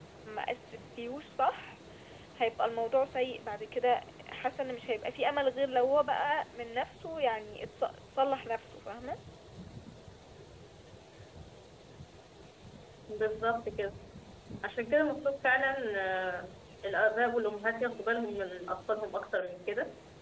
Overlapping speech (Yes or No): No